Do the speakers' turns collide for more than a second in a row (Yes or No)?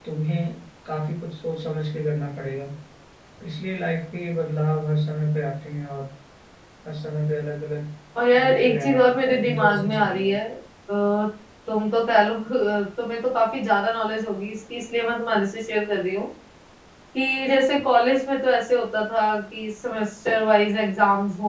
Yes